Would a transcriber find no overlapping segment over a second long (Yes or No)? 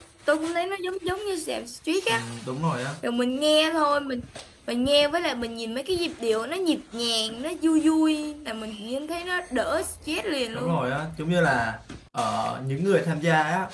Yes